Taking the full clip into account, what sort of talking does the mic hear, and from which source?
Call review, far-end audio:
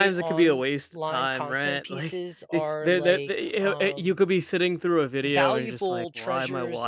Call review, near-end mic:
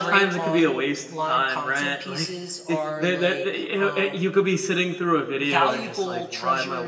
echo only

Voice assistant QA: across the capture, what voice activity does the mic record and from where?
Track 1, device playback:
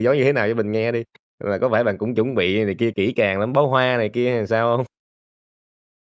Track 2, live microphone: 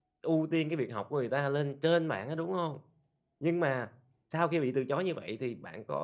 user only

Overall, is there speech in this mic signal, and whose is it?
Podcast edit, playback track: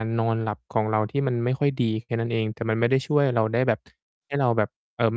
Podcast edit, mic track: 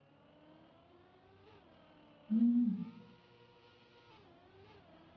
user only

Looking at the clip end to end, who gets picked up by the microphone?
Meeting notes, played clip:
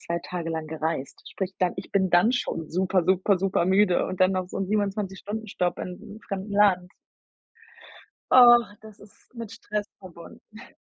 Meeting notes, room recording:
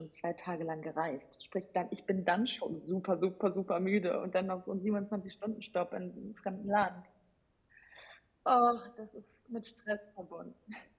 echo only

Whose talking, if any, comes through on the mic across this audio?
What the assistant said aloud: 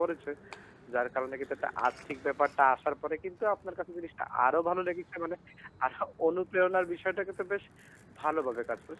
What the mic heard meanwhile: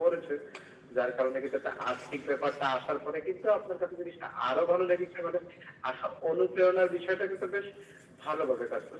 echo only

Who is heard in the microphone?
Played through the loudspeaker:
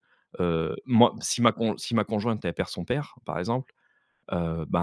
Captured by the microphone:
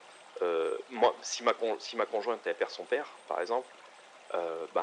echo only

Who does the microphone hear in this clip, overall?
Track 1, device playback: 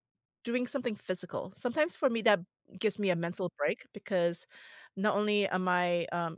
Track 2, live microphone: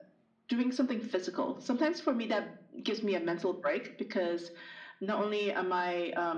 echo only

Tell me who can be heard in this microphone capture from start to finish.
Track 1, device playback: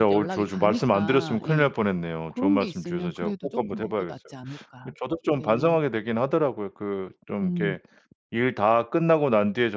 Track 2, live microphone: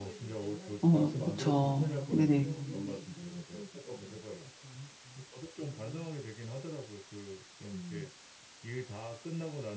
both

